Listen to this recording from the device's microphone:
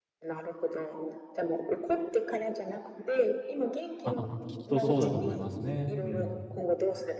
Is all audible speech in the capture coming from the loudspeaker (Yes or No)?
No